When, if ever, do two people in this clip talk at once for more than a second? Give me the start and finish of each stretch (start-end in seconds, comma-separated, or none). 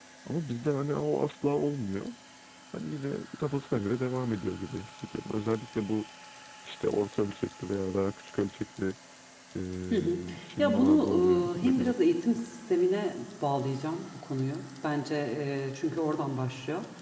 10.6-11.9